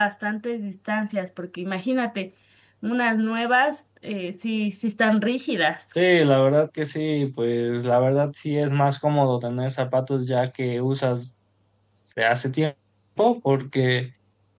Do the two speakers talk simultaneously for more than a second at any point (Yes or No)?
No